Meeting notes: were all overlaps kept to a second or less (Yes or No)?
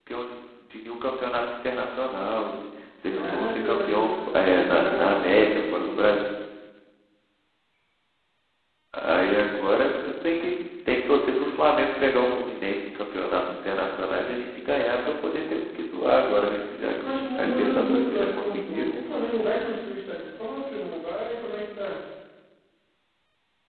No